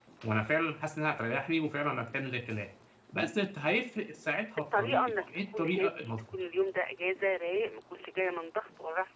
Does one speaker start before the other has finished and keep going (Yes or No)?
Yes